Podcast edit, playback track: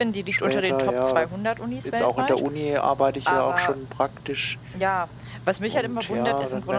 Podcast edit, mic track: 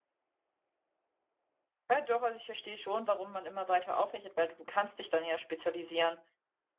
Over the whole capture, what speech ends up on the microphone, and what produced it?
user only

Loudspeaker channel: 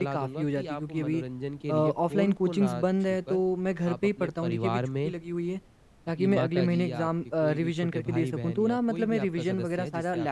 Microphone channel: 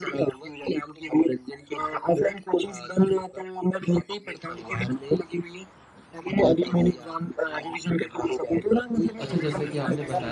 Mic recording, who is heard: both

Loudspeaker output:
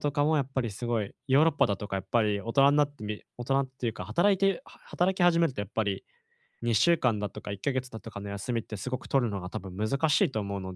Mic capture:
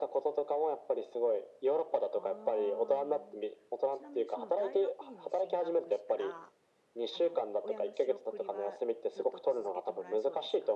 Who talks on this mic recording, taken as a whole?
both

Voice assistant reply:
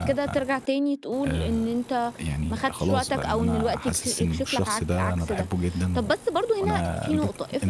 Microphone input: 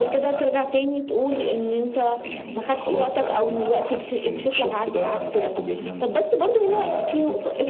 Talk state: echo only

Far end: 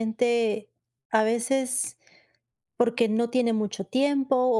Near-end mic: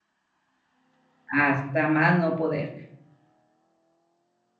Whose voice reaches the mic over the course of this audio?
user only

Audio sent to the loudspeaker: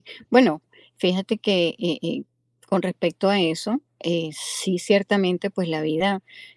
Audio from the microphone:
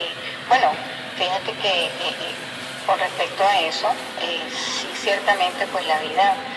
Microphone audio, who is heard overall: echo only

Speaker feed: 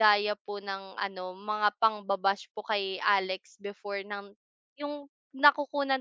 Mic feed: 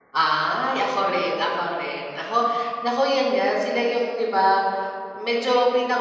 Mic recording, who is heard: user only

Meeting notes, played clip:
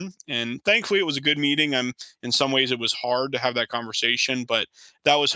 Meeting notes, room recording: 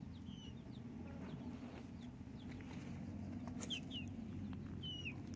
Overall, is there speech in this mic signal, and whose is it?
neither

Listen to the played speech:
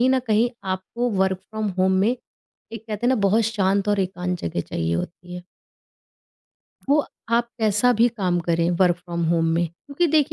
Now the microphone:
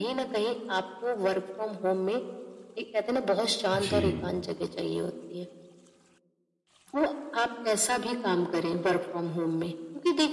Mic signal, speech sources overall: both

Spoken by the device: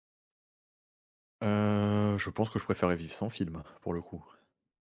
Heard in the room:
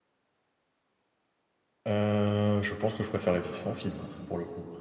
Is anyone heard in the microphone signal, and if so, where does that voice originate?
echo only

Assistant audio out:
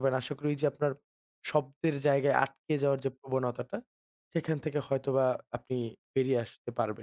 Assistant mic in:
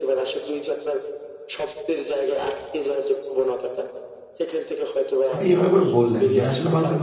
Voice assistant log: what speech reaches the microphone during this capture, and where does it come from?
both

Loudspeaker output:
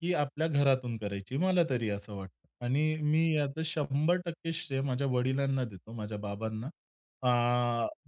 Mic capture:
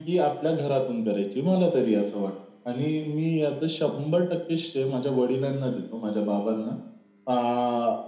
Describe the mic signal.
echo only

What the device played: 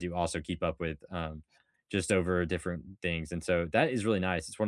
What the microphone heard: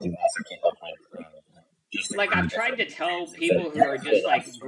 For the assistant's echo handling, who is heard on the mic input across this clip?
both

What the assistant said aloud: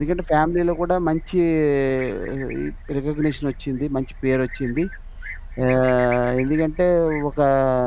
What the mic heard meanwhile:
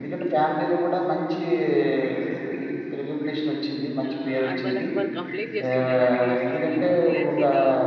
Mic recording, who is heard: both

